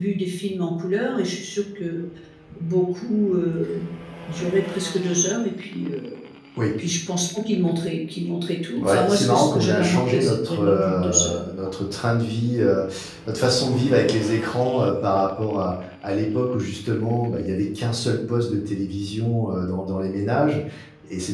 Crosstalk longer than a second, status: present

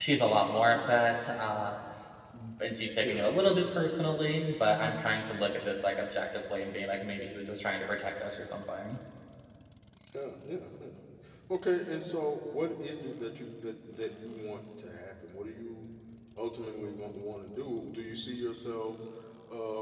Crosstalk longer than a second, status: none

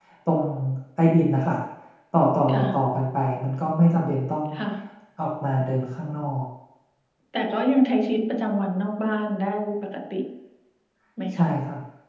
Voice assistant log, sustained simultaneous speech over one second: none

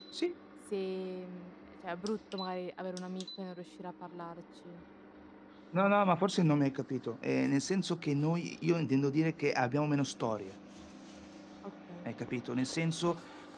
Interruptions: none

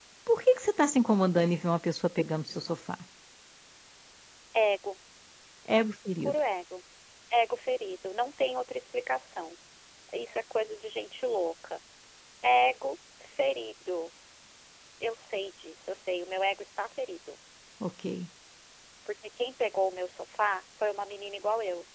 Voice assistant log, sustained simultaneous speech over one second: none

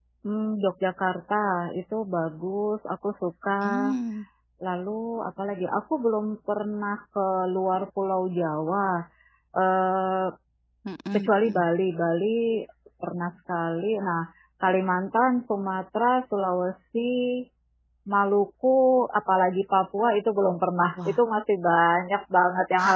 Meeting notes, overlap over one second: none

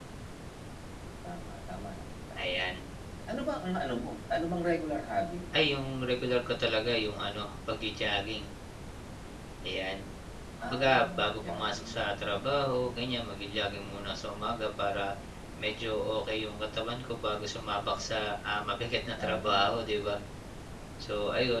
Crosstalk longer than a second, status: present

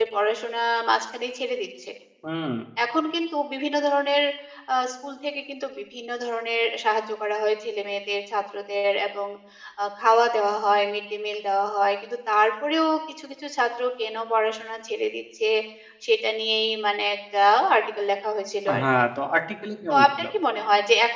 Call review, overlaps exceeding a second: none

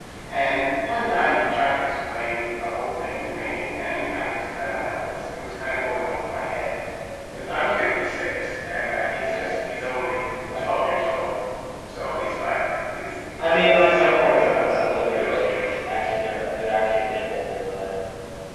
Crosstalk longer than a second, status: present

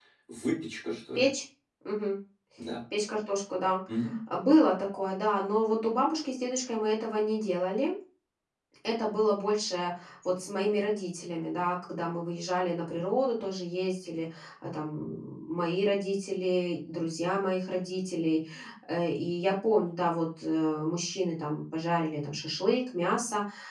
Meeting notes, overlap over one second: none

